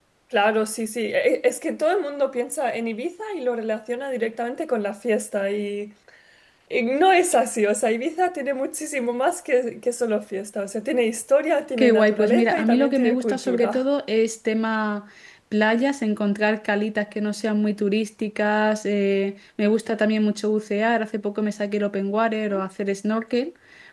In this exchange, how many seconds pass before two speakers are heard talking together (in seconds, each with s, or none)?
11.8 s